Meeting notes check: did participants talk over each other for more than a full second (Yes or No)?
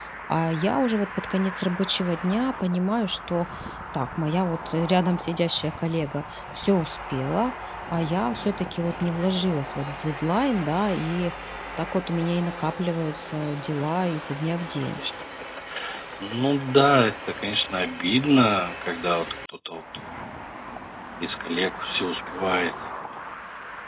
No